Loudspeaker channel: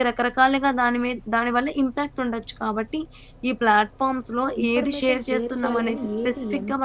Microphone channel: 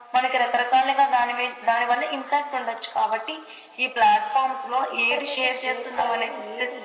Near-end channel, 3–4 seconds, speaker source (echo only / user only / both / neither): echo only